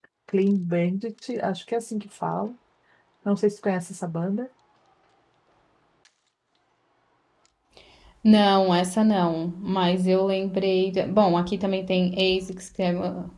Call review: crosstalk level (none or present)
none